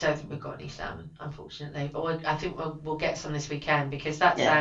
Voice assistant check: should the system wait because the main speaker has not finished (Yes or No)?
Yes